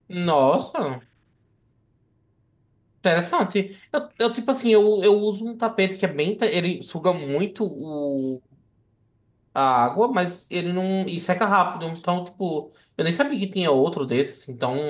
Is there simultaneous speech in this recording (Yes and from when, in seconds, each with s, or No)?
No